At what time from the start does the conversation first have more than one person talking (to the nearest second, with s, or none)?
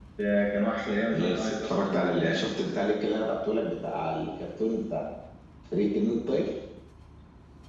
1 s